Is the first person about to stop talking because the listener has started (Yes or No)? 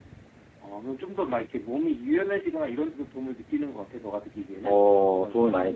Yes